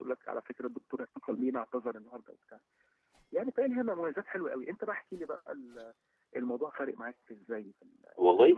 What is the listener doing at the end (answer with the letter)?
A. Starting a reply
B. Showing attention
A